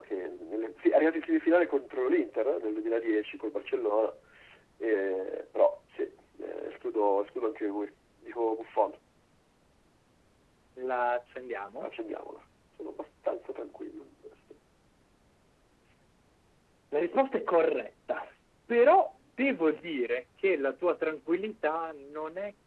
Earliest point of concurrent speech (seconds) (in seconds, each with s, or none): none